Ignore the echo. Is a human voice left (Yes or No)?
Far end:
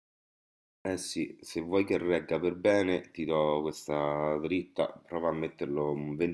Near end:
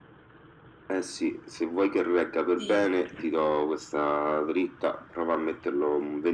Yes